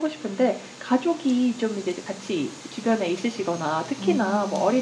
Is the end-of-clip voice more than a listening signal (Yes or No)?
No